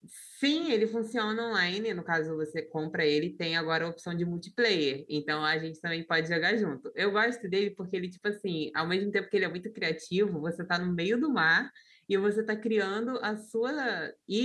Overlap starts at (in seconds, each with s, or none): none